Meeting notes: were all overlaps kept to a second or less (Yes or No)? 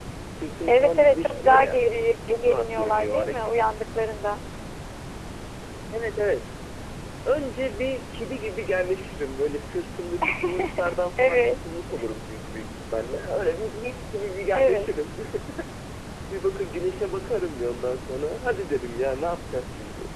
No